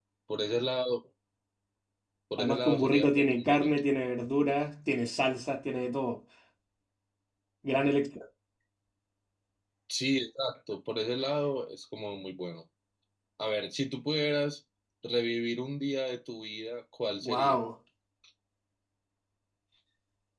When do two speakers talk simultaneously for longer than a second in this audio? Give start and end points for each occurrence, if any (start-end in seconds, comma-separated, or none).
2.4-3.7